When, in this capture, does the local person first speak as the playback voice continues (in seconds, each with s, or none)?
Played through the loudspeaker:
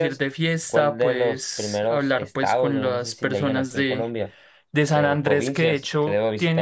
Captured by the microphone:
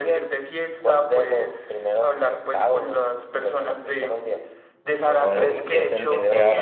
5.2 s